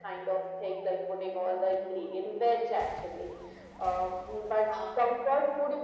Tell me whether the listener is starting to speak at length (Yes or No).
No